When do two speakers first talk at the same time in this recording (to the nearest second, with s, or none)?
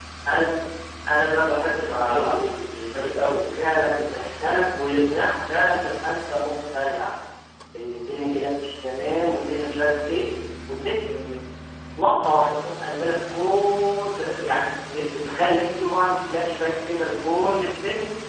2 s